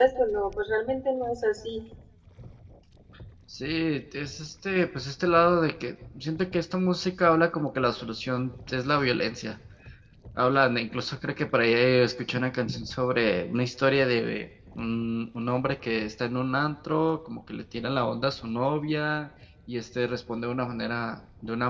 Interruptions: none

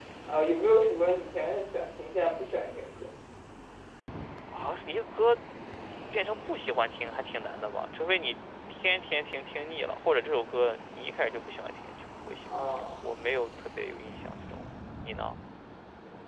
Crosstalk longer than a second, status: none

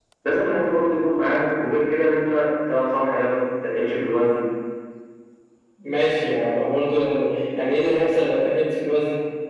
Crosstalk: none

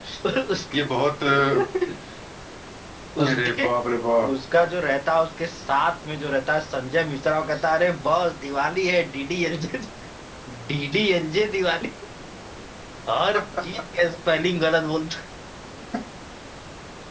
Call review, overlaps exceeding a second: none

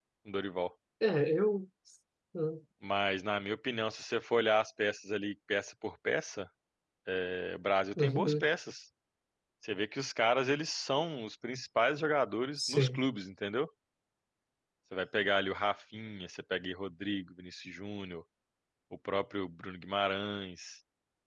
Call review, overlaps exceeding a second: none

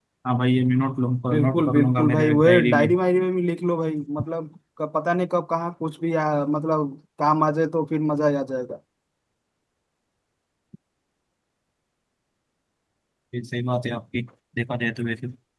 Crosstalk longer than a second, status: present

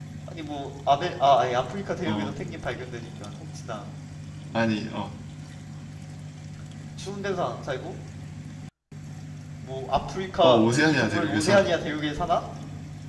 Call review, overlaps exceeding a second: present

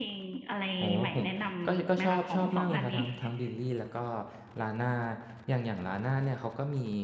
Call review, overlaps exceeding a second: present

